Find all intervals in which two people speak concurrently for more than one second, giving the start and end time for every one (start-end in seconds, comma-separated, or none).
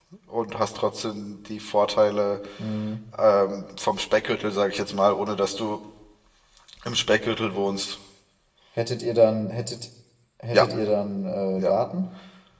none